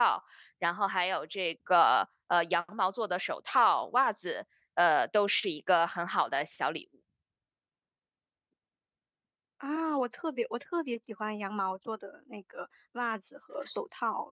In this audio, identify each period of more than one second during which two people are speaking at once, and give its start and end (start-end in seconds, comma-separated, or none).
none